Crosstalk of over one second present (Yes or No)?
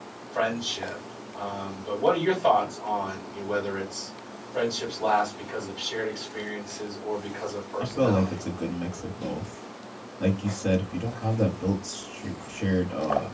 No